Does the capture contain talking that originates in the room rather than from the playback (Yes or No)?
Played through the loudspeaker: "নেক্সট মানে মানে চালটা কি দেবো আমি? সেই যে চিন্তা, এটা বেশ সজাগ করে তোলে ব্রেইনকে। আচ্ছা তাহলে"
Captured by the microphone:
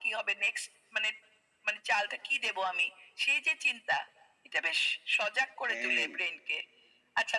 Yes